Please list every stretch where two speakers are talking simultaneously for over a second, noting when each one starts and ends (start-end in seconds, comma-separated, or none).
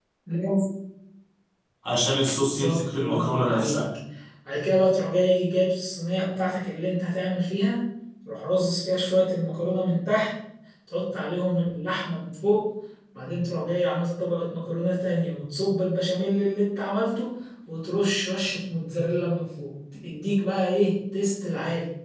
2.4-3.9